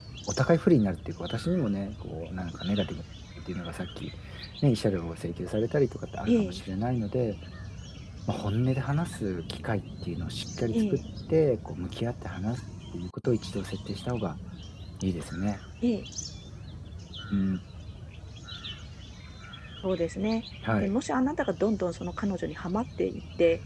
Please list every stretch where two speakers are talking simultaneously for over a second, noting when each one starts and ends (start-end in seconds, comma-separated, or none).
none